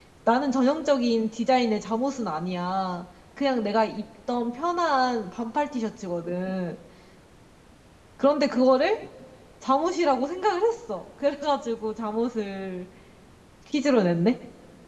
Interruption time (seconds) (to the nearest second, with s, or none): none